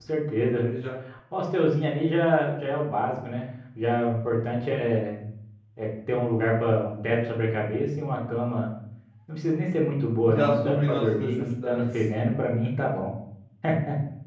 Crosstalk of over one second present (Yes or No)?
Yes